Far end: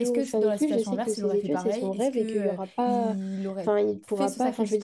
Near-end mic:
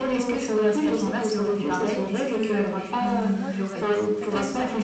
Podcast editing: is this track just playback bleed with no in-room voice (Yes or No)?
No